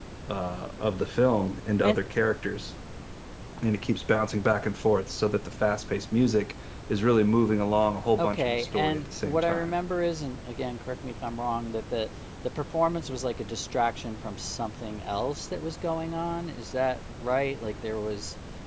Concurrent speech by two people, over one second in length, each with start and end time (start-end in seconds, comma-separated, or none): 8.2-9.7